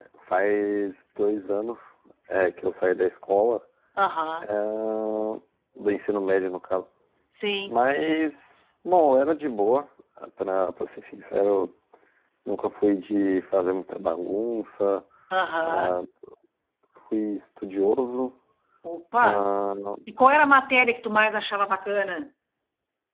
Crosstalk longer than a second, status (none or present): none